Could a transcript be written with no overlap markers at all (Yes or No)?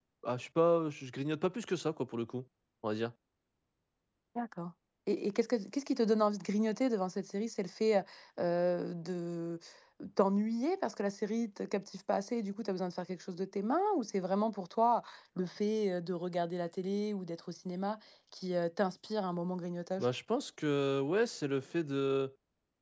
Yes